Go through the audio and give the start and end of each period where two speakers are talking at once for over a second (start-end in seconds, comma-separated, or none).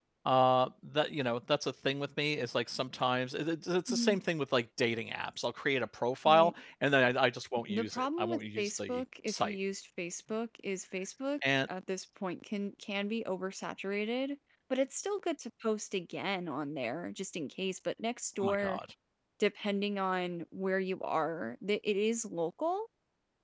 7.7-9.6